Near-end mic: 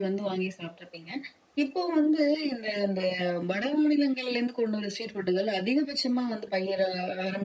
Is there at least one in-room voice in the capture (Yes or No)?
No